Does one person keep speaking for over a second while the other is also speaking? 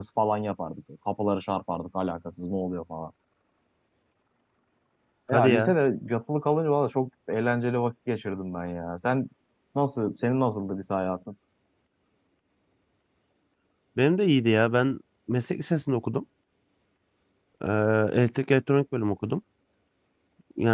No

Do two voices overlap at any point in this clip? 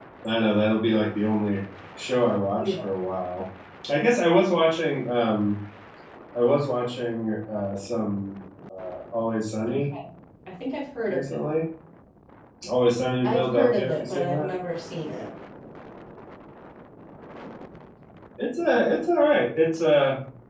Yes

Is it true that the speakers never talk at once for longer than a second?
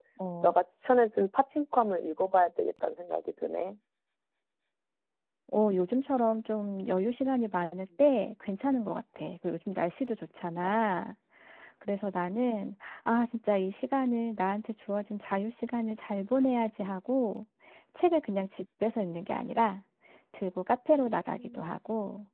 Yes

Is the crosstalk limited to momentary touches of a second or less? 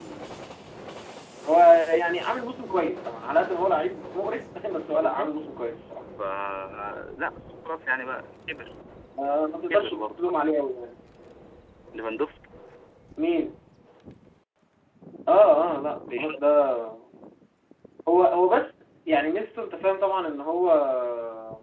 Yes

